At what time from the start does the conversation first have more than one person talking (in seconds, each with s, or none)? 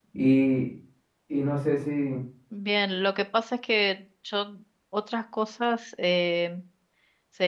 none